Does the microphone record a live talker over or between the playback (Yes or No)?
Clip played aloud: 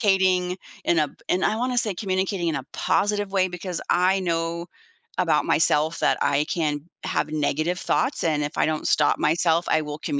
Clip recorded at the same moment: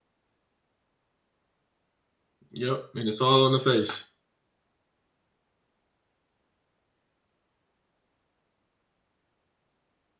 Yes